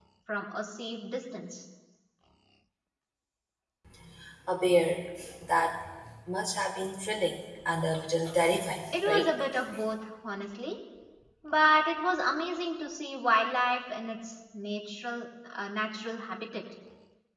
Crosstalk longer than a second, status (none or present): none